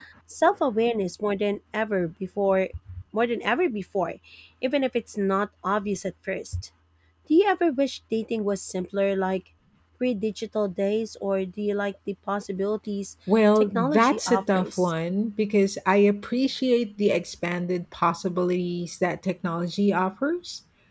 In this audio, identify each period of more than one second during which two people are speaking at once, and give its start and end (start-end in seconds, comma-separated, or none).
13.6-14.9